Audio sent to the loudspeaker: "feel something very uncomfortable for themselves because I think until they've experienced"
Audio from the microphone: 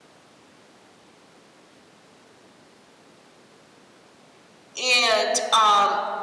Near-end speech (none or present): present